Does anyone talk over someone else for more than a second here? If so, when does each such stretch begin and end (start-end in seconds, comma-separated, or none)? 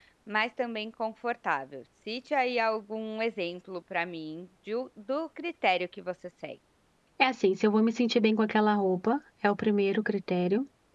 none